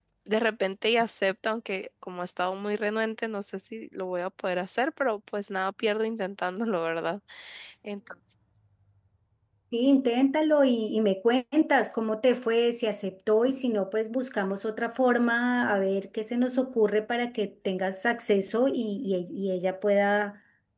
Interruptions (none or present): none